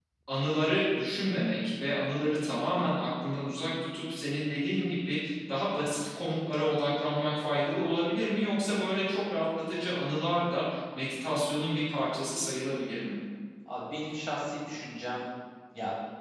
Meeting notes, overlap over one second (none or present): none